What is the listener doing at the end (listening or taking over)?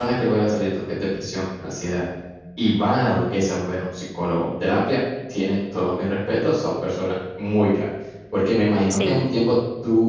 listening